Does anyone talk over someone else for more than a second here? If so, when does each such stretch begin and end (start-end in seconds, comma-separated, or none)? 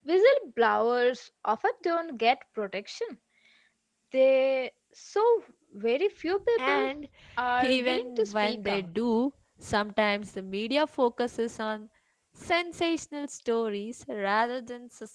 7.6-8.9